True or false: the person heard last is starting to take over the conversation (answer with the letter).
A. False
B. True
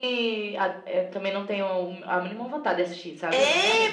B